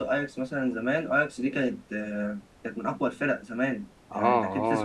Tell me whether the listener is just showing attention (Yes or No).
No